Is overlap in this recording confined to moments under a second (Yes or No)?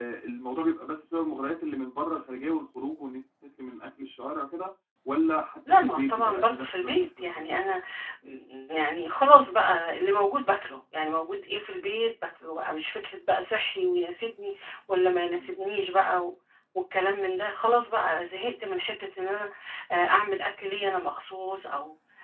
No